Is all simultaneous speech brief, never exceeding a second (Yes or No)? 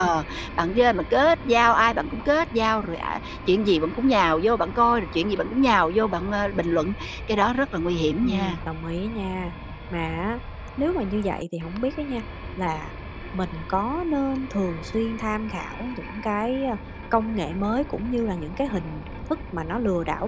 Yes